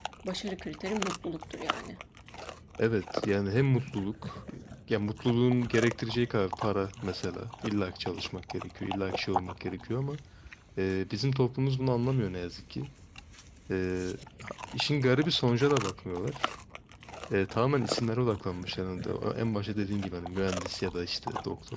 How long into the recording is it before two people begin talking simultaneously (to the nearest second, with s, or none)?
none